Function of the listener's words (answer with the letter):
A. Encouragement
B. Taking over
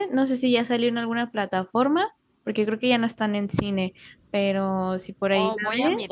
B